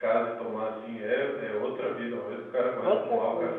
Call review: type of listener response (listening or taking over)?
listening